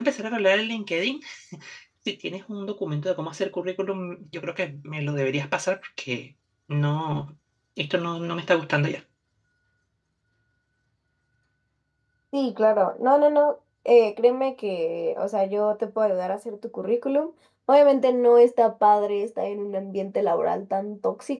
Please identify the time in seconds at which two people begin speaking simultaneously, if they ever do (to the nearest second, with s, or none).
none